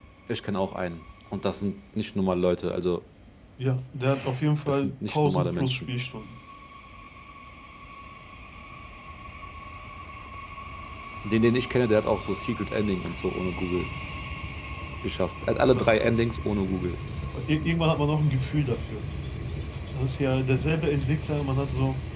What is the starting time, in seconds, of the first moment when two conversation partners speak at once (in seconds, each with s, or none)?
4.7 s